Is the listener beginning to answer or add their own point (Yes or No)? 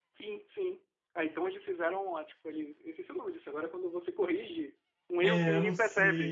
Yes